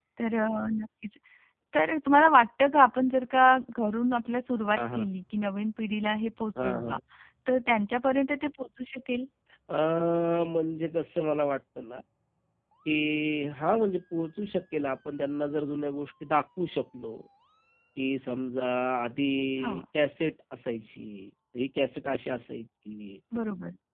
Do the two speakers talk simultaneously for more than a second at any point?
No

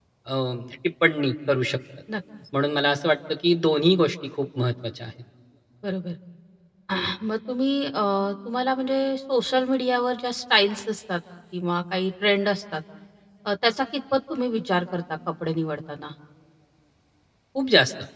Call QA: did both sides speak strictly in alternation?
Yes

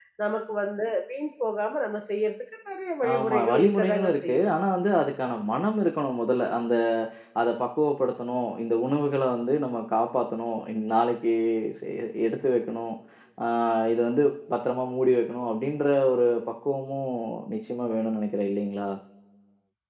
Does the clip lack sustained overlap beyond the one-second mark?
No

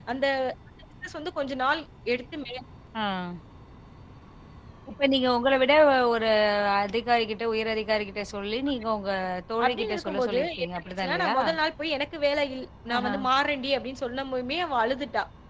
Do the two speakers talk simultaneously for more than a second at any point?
Yes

